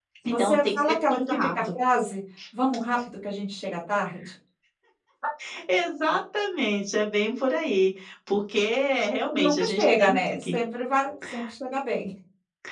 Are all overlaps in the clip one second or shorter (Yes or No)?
No